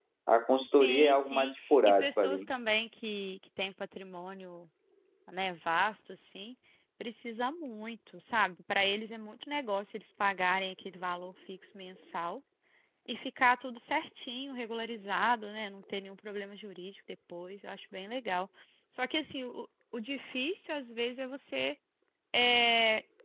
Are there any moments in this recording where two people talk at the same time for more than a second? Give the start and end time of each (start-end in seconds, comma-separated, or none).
0.8-2.5